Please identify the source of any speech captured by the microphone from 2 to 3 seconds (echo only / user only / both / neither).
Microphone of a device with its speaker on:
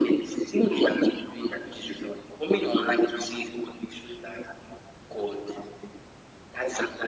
echo only